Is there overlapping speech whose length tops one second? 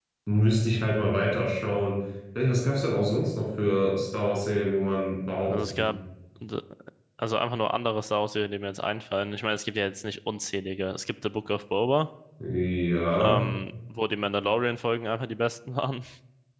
No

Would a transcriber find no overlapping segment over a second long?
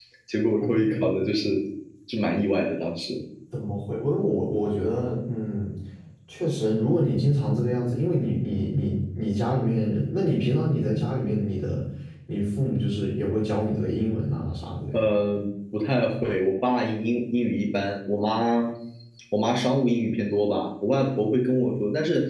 Yes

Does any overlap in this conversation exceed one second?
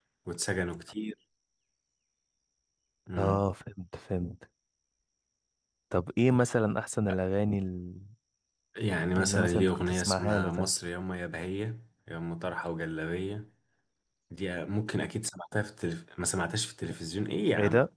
Yes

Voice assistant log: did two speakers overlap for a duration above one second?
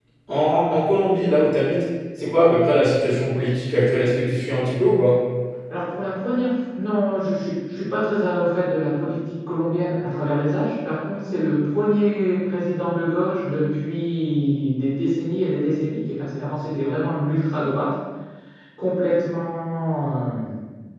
No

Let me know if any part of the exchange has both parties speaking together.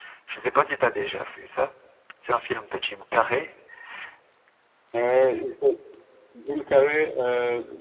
No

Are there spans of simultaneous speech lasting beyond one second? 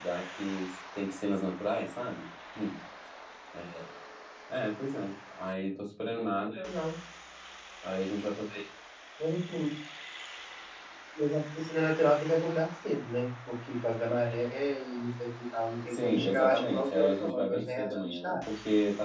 Yes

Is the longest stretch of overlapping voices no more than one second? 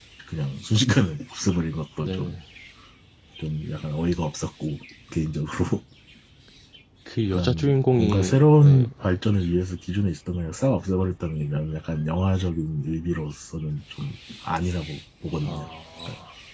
No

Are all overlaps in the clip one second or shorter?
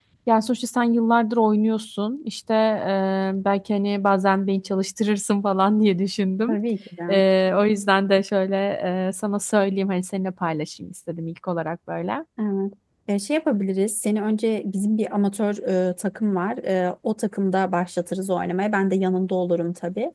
Yes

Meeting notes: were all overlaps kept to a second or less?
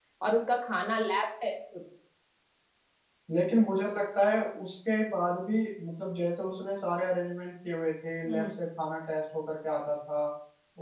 Yes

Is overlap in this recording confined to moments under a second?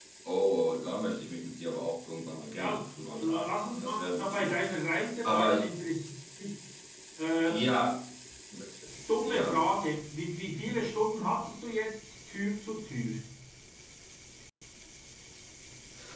No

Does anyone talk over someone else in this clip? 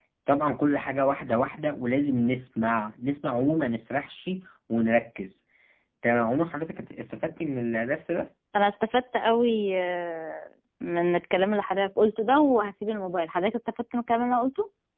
No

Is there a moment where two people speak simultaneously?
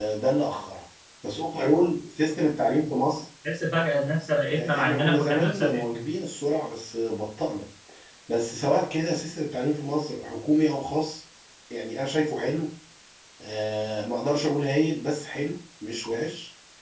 Yes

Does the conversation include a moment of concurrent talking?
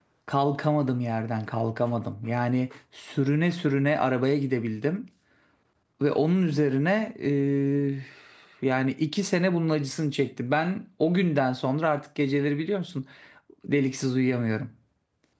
No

